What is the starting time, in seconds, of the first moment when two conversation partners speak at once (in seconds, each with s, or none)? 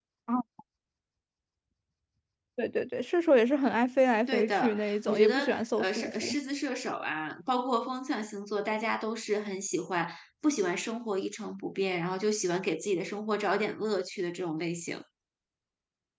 4.3 s